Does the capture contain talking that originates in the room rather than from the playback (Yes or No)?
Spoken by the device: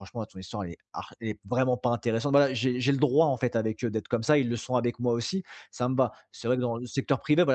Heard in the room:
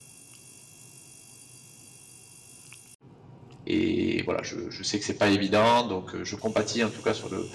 Yes